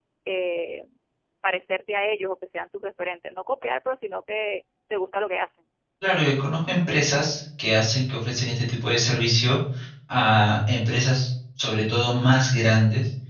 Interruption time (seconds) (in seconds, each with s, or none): none